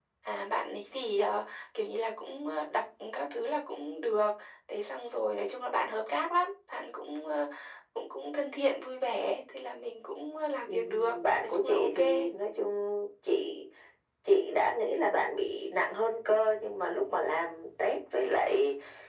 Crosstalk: present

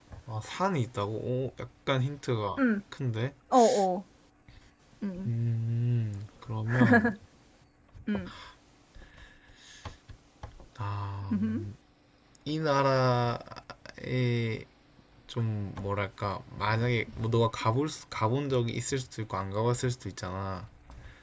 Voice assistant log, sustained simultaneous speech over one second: none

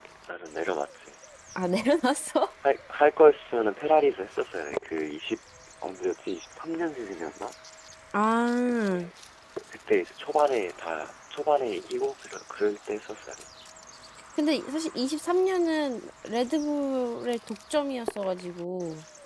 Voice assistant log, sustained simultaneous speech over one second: none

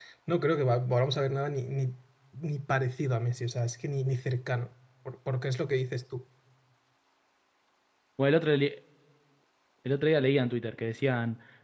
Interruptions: none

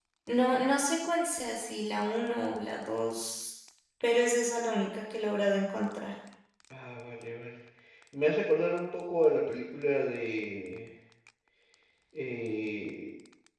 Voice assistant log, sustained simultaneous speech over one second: none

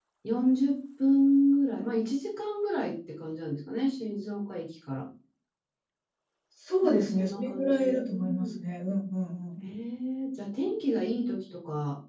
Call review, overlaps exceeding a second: present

